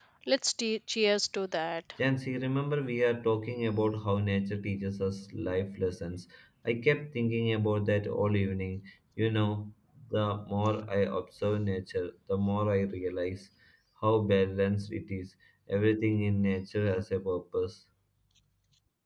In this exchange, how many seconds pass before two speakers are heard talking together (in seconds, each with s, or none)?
none